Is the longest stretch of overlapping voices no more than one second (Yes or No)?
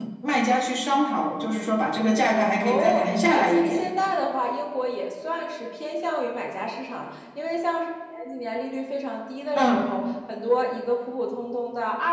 No